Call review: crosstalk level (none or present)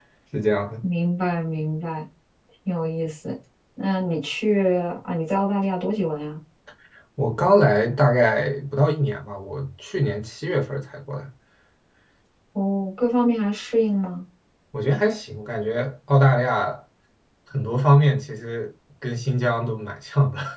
none